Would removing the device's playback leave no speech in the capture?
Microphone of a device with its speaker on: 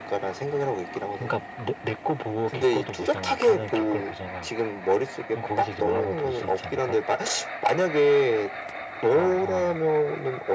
Yes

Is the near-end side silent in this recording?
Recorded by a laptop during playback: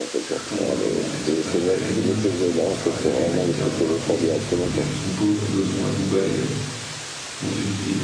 No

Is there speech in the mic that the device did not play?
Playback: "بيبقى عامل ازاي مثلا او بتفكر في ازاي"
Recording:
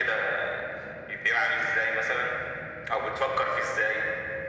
No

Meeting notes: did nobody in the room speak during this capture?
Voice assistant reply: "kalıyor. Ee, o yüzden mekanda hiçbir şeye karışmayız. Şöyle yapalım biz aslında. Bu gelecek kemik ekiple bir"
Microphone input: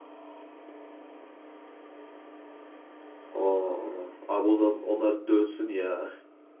No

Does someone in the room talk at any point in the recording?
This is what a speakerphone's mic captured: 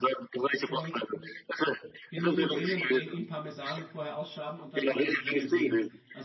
Yes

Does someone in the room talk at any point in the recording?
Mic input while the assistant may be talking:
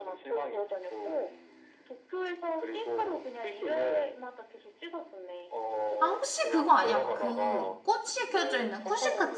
Yes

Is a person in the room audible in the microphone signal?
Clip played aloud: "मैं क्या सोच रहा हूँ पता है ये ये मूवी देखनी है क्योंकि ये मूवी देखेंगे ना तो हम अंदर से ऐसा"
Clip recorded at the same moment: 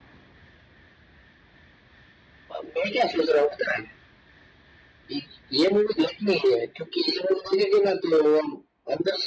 No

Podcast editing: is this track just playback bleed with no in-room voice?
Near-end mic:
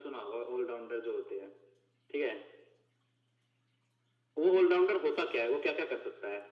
Yes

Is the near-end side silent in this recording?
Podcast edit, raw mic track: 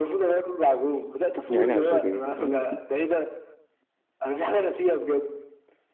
No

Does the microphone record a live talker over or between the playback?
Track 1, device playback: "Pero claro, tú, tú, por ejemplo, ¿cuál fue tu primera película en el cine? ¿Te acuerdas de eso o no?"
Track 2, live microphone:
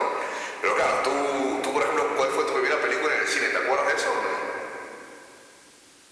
No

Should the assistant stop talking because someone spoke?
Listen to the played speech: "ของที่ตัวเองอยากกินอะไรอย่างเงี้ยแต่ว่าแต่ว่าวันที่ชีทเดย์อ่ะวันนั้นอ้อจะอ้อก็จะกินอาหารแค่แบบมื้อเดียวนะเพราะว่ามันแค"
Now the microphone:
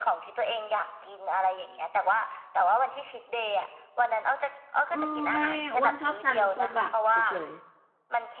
Yes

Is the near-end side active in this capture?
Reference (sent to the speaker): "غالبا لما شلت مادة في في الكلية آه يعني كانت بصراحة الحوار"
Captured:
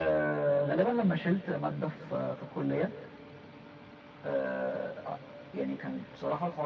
No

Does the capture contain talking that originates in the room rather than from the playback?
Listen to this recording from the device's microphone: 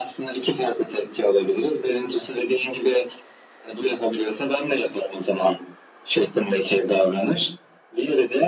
No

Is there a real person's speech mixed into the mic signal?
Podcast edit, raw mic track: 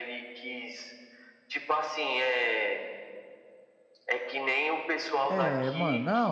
Yes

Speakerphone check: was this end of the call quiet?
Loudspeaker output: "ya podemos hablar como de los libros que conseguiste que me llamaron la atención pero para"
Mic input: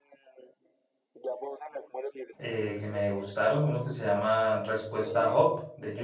No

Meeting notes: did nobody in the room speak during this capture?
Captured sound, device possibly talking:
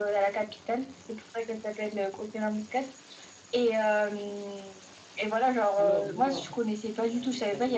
No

